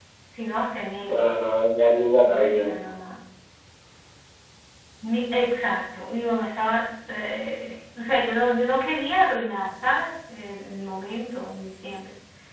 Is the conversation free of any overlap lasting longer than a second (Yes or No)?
Yes